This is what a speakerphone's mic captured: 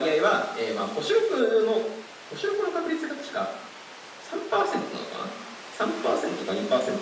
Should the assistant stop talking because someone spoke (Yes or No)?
No